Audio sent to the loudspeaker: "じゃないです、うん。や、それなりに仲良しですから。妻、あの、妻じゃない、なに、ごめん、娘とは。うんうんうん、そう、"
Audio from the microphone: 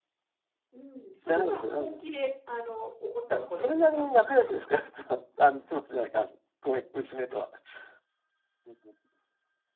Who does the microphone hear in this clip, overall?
both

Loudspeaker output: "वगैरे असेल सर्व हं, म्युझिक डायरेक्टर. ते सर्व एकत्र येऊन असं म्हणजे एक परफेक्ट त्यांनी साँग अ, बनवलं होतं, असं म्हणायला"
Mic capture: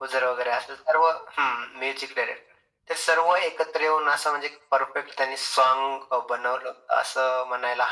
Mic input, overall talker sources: echo only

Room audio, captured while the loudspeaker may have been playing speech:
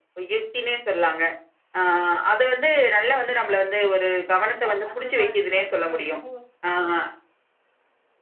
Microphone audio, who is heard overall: both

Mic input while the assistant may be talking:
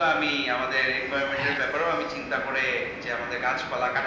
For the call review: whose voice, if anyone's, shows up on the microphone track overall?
both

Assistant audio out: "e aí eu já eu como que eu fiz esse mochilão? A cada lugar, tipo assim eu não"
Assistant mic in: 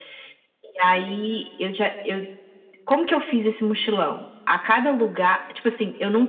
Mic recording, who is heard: echo only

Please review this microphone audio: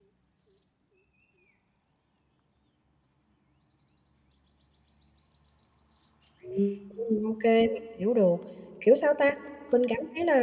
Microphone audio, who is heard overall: user only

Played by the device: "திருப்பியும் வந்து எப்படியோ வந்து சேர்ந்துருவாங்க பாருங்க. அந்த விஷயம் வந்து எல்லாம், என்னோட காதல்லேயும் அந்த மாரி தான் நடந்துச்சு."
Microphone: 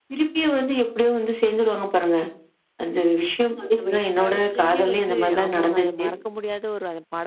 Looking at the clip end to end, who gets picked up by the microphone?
both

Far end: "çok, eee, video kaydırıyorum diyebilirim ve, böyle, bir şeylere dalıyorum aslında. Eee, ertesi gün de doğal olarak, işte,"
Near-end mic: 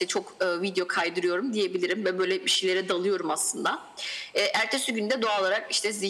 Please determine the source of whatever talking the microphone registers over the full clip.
echo only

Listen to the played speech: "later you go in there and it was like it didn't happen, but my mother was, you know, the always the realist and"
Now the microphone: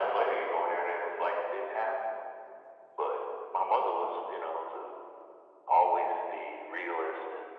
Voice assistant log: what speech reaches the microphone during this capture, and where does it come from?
echo only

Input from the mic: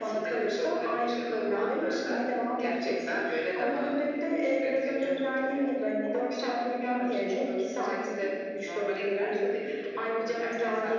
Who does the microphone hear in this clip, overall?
echo only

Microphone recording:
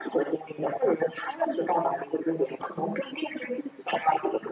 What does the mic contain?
echo only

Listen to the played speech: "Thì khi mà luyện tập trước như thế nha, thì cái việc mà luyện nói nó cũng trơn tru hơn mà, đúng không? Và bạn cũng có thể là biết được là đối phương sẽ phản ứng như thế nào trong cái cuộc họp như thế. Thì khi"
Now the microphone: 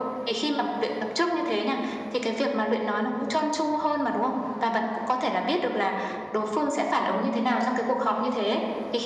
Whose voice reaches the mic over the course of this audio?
echo only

